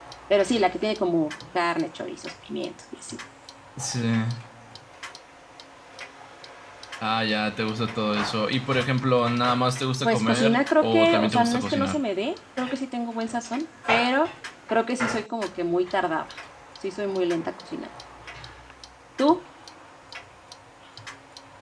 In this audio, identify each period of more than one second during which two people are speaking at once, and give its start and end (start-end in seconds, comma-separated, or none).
10.0-12.0